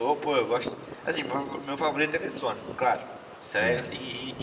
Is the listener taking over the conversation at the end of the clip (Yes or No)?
No